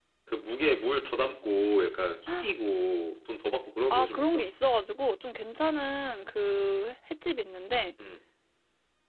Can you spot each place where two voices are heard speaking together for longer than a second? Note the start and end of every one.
none

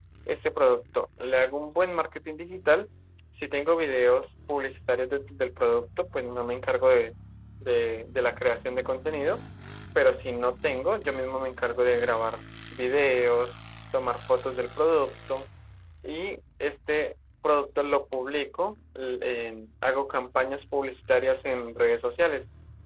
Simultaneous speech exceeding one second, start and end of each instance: none

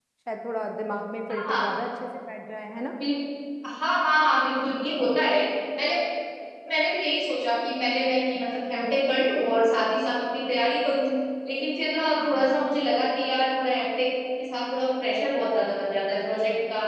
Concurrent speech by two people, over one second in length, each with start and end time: none

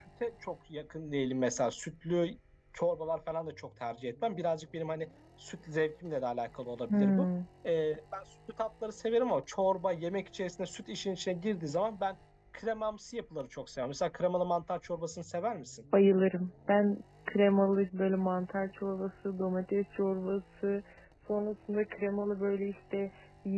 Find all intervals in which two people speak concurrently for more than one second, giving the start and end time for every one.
none

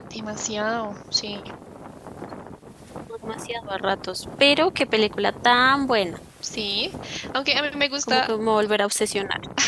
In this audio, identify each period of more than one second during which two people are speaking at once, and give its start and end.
none

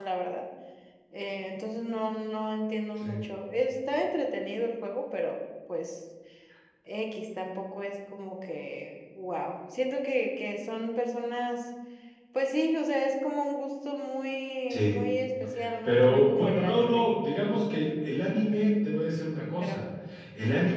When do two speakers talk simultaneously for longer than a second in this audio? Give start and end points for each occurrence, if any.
15.8-17.1

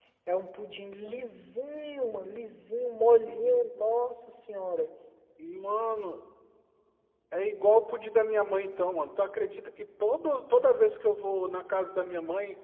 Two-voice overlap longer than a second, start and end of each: none

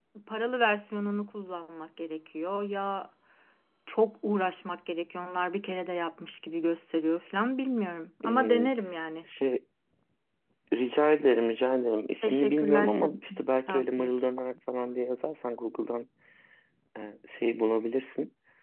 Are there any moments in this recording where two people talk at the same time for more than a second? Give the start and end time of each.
12.2-14.3

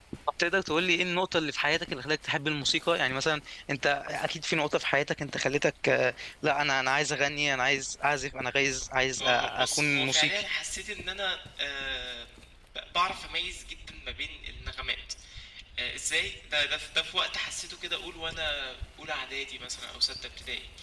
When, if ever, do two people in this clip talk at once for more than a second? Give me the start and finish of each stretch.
9.2-10.4

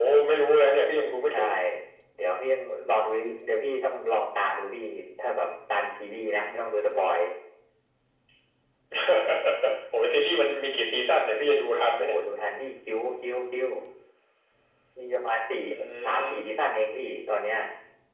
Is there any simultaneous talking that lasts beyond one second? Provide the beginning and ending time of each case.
none

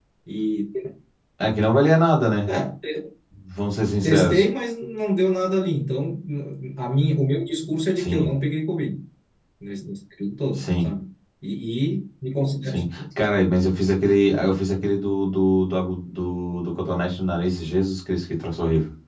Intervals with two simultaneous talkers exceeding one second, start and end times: none

